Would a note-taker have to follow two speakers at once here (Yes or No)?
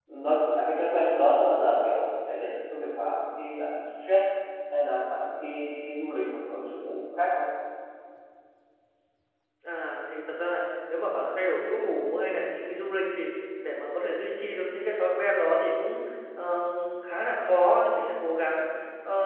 No